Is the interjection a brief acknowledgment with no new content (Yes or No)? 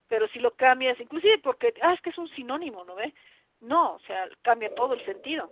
Yes